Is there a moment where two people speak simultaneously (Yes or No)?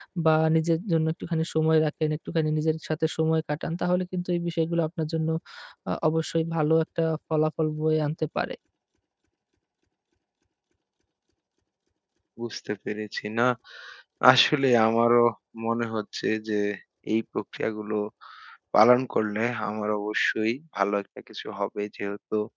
No